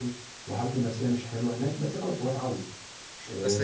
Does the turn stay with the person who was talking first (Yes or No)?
No